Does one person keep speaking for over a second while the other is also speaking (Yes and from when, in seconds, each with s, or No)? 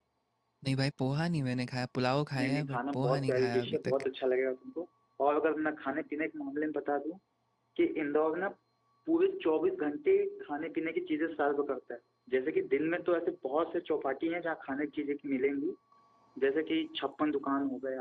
Yes, from 2.3 s